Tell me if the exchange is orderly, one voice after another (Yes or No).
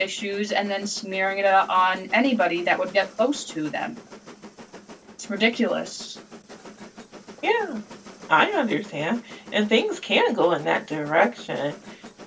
Yes